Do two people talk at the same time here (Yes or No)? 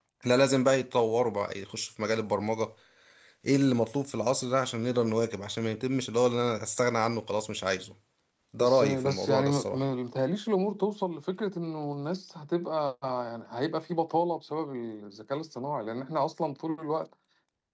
Yes